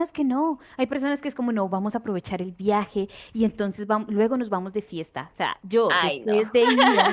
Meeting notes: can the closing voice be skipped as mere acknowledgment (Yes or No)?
Yes